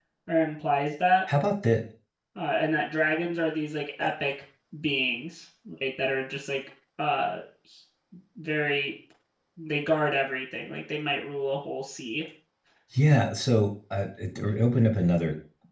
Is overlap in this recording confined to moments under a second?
Yes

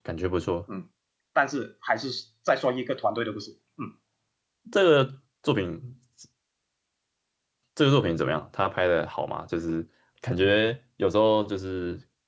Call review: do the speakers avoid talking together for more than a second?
Yes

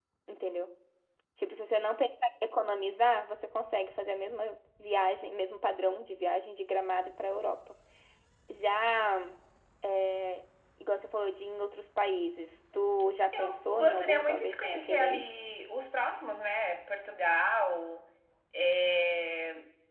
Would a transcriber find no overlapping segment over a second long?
No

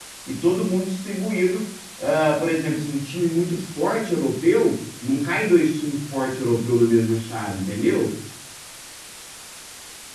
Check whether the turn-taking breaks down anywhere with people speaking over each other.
No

